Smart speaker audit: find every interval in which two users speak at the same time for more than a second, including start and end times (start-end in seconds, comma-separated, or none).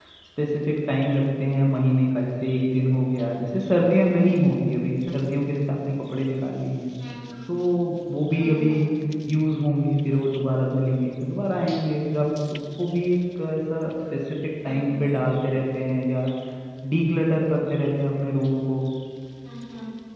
none